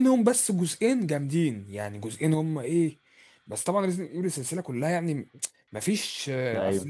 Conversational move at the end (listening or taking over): listening